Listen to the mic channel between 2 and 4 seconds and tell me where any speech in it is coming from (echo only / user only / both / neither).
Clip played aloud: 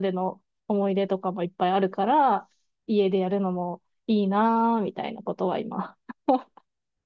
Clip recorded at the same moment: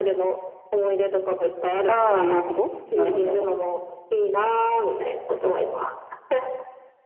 both